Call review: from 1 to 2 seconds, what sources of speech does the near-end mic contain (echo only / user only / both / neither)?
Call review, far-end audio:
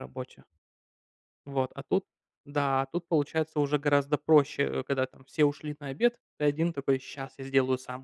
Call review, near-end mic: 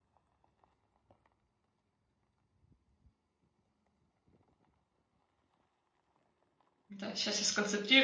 neither